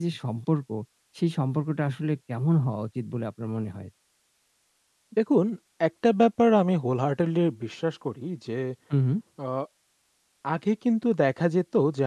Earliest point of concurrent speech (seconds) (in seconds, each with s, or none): none